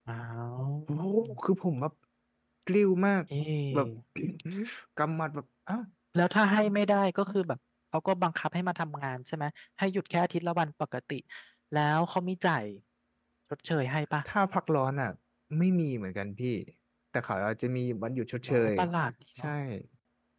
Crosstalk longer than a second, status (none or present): none